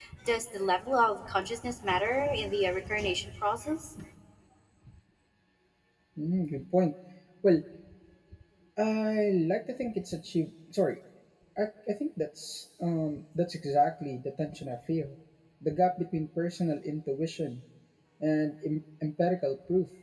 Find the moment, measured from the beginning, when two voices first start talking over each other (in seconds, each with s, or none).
none